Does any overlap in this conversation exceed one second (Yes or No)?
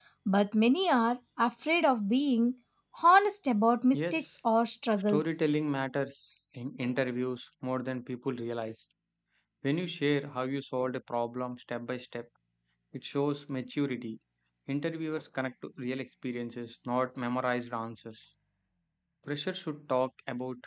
No